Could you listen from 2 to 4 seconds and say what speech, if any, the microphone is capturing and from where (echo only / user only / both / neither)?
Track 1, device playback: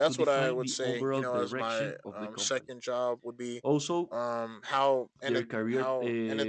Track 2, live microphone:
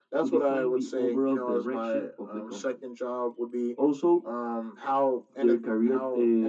echo only